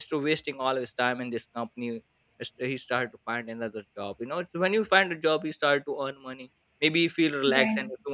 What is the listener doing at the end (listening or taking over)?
listening